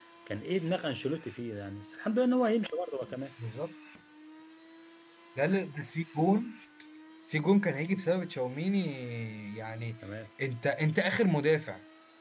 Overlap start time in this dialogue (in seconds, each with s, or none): none